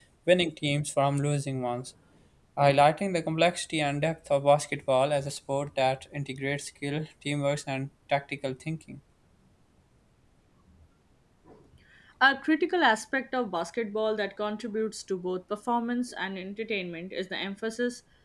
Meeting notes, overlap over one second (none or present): none